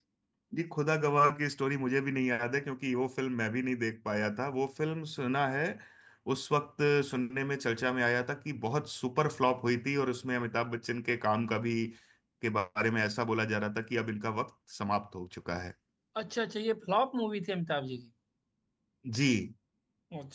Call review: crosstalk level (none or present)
none